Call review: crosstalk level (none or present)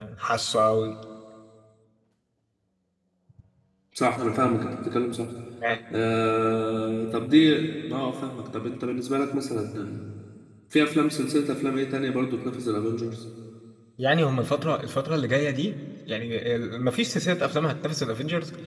none